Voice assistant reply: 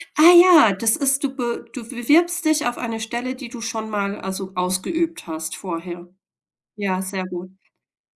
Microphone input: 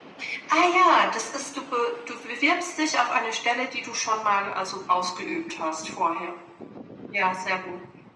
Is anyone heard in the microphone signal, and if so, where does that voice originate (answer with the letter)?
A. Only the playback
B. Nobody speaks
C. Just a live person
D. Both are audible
A